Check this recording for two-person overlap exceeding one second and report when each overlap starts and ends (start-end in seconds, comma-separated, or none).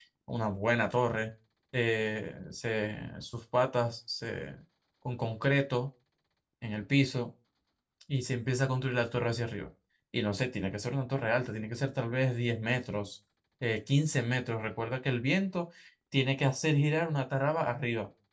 none